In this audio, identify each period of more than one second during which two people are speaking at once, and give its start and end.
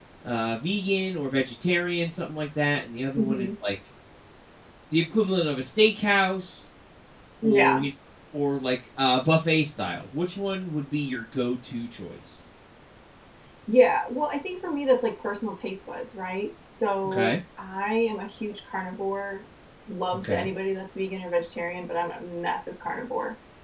none

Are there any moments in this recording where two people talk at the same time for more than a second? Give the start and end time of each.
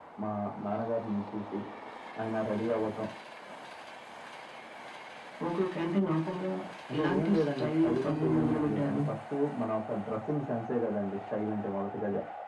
7.0-9.0

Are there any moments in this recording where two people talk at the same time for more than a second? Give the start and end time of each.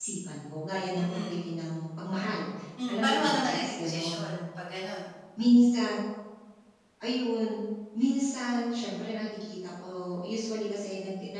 2.9-4.3

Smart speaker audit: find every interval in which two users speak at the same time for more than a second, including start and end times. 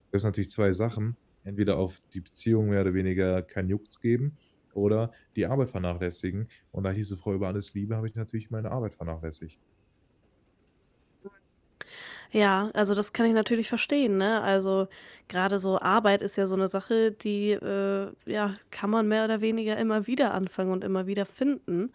none

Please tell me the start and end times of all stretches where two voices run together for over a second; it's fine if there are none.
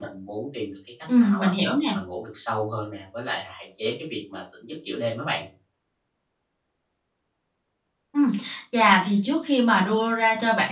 none

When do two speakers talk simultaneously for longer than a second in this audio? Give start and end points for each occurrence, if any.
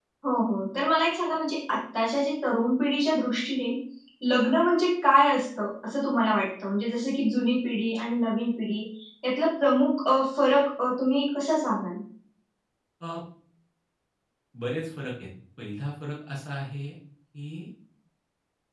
none

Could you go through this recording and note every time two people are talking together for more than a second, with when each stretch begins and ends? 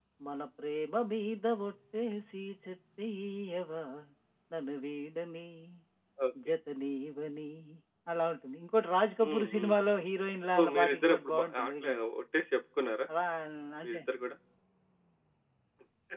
10.6-12.0

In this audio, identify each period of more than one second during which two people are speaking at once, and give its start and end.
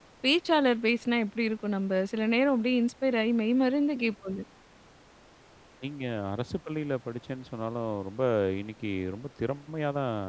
none

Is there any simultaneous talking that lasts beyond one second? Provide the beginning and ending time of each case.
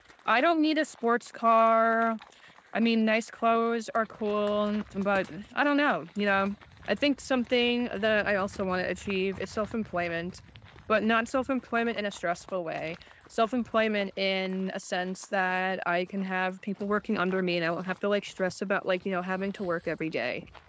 none

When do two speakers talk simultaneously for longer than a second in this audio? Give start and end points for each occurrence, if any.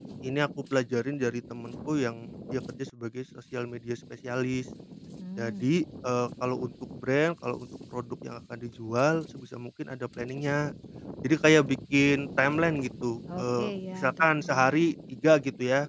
13.4-14.9

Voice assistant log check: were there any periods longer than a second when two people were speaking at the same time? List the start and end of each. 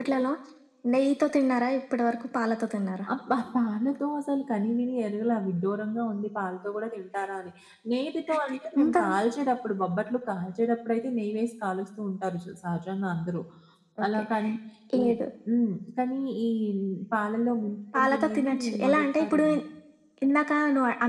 17.9-19.4

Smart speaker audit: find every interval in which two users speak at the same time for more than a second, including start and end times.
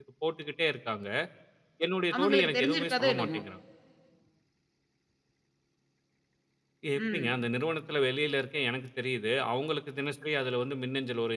2.2-3.4

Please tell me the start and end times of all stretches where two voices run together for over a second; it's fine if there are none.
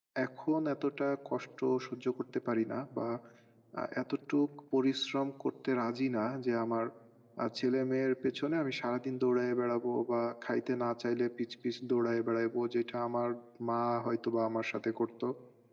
none

